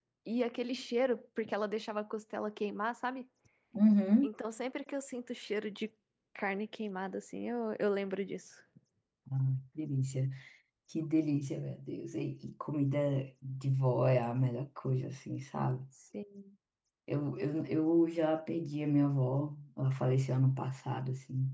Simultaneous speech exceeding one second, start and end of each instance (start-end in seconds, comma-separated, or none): none